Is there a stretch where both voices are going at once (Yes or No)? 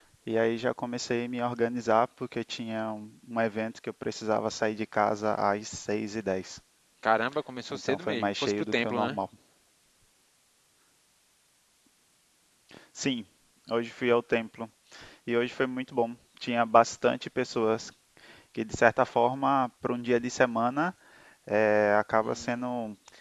Yes